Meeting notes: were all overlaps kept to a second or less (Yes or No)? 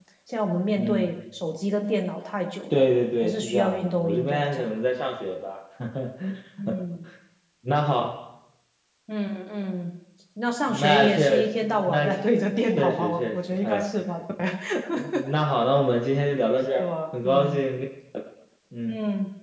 No